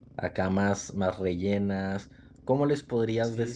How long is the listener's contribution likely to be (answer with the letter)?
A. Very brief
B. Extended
B